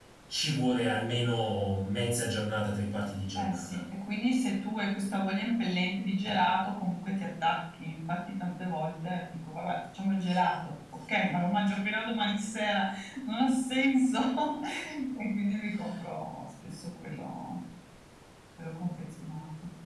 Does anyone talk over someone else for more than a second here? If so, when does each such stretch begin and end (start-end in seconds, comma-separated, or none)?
none